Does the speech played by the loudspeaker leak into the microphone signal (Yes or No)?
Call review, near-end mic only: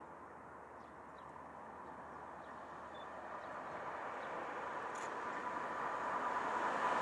No